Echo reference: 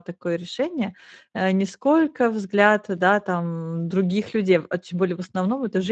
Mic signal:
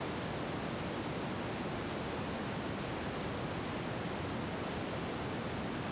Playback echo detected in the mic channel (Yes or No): No